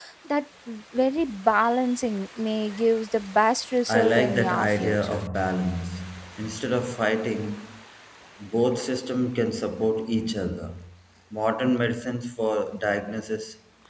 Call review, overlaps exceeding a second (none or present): present